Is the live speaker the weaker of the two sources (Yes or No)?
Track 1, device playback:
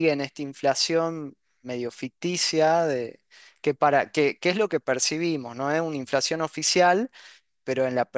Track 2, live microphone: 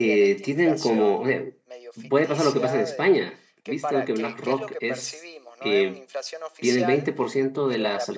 No